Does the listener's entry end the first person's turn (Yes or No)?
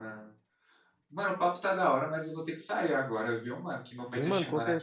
Yes